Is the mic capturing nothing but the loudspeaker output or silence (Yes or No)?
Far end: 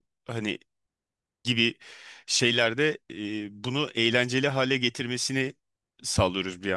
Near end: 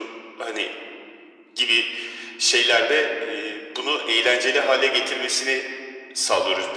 Yes